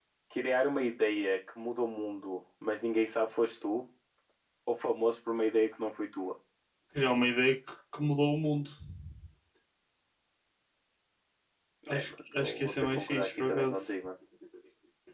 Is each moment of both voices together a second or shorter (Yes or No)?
No